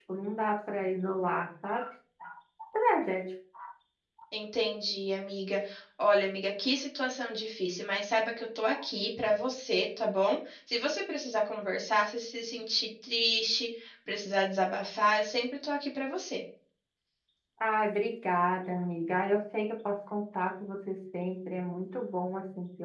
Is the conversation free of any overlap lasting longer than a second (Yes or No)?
Yes